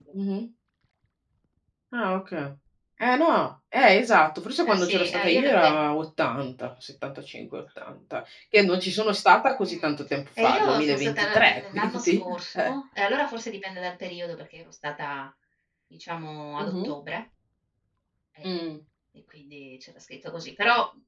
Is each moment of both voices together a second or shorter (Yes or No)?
No